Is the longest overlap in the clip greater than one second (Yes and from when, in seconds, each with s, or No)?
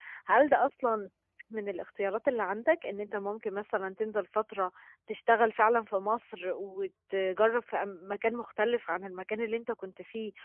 No